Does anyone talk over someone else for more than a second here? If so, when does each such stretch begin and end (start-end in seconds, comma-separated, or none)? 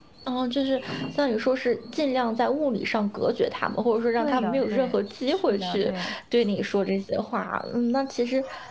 4.2-5.9